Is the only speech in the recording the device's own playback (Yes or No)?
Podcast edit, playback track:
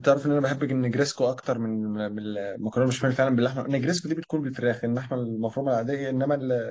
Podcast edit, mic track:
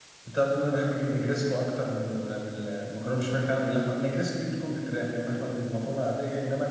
Yes